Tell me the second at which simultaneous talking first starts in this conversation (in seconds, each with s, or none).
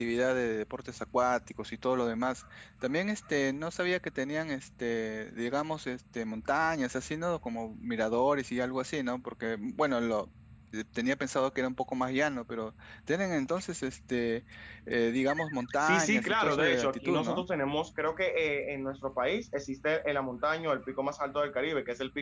15.8 s